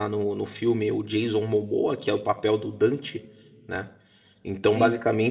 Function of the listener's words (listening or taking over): listening